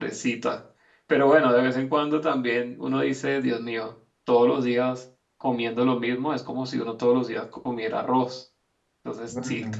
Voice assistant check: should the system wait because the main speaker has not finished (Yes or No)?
Yes